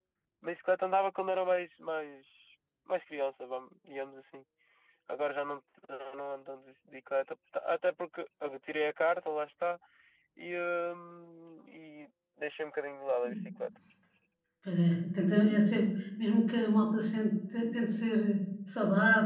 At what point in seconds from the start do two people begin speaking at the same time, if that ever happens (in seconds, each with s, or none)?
none